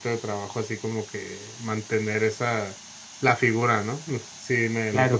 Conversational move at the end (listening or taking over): taking over